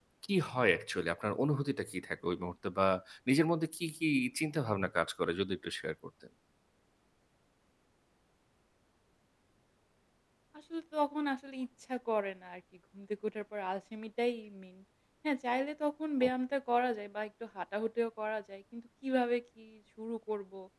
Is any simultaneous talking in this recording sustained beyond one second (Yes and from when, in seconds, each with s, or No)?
No